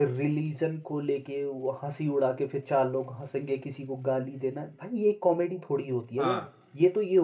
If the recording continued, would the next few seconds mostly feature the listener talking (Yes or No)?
No